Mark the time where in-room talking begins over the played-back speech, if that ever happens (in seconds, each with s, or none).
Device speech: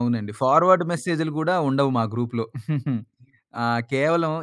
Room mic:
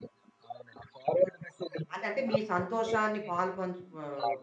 1.9 s